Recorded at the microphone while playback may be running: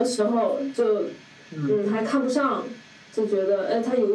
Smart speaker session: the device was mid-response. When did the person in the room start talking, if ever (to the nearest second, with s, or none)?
2 s